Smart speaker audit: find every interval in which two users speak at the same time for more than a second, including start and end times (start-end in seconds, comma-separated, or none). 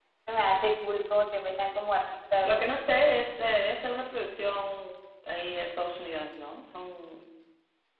none